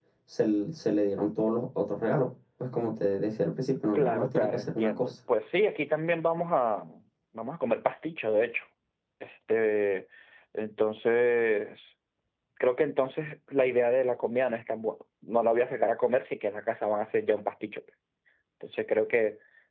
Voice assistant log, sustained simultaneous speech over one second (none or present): present